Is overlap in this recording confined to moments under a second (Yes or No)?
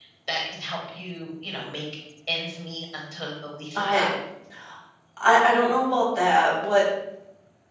Yes